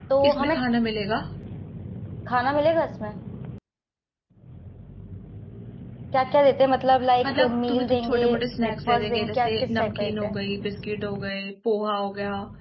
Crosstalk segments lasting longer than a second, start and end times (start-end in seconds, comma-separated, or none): 7.2-10.3